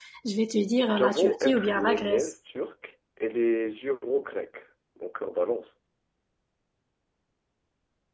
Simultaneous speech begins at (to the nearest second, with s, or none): 1 s